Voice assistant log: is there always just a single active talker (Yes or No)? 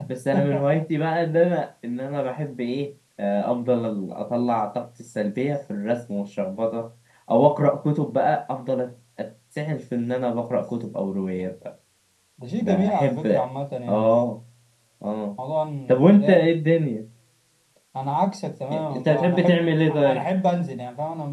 No